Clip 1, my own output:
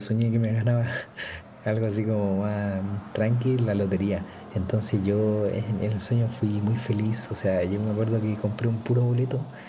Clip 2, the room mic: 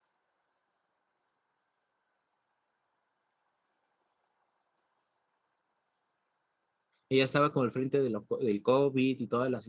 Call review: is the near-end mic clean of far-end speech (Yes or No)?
Yes